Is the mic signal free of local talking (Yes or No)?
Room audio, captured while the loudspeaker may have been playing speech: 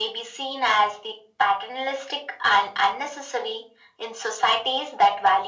Yes